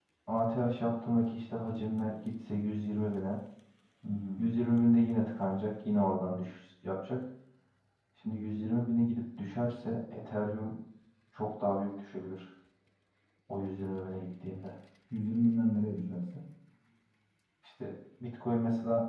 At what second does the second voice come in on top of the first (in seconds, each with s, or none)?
none